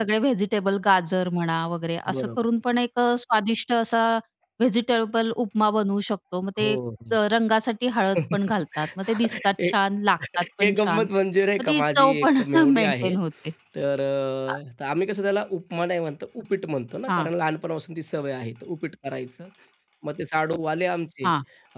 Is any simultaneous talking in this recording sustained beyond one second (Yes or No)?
Yes